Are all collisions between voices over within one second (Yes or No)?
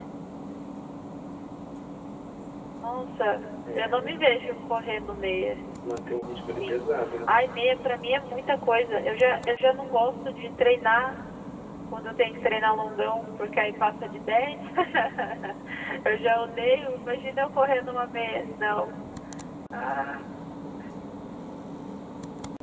Yes